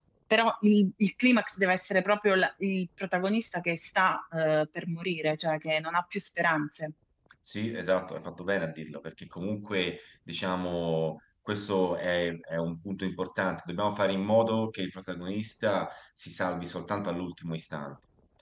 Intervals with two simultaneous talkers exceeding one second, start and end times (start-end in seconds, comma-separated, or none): none